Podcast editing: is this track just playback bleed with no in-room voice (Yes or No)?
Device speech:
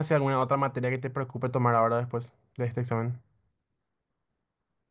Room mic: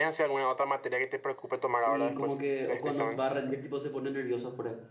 No